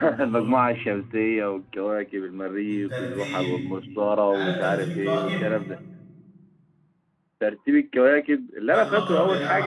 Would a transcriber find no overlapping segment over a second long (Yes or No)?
No